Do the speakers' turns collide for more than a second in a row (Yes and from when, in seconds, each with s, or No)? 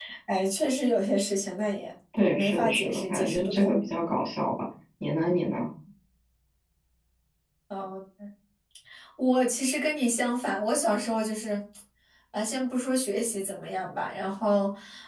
Yes, from 2.1 s